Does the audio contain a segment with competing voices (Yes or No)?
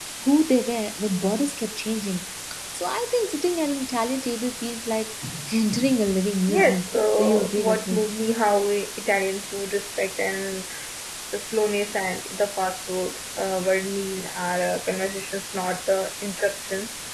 Yes